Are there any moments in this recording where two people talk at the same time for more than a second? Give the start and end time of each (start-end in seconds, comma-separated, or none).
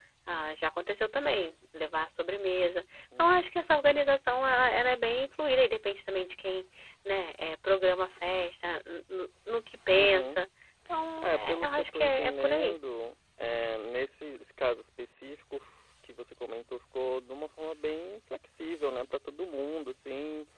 11.2-12.8